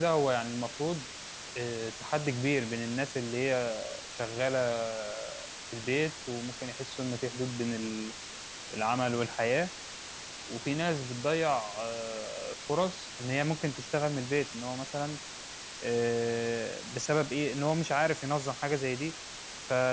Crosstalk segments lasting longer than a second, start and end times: none

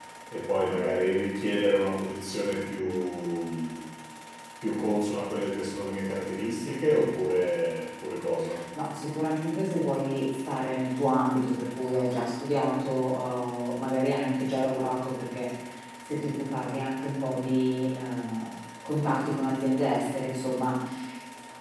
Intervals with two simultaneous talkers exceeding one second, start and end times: none

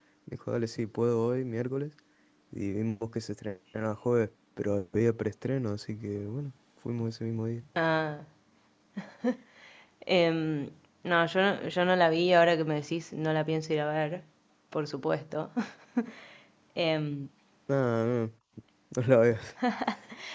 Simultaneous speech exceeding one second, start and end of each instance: none

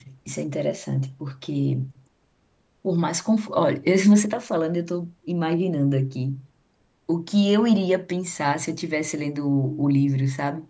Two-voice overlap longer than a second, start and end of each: none

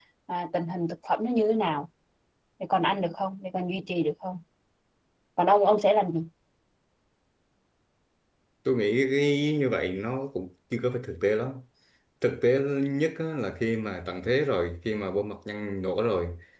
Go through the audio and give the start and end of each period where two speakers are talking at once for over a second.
none

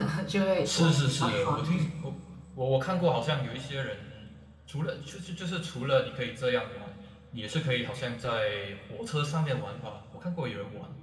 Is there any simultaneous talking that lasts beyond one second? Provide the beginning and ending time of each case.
0.7-1.9

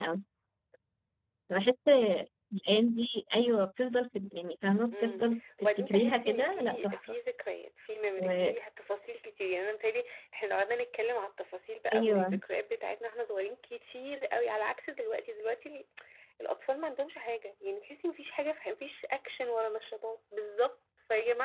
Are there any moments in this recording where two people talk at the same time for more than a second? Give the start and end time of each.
5.6-7.0

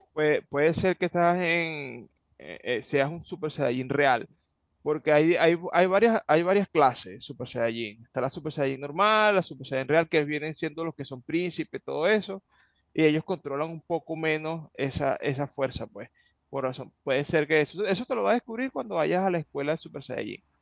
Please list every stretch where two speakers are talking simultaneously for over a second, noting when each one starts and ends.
none

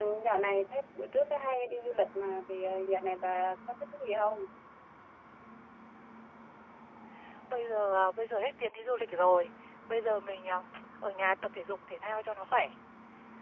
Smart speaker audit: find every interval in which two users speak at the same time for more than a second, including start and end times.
none

